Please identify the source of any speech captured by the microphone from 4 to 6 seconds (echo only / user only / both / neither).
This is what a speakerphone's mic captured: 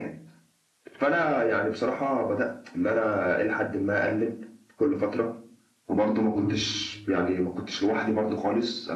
echo only